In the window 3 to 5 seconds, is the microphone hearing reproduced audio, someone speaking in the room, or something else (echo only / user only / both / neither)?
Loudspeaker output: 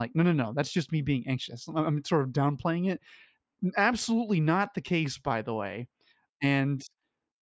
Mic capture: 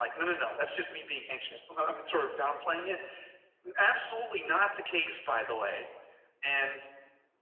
echo only